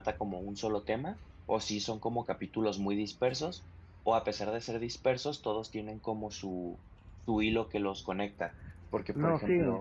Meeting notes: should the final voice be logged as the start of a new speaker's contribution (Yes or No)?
Yes